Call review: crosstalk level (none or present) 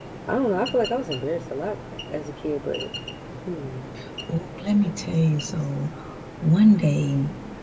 none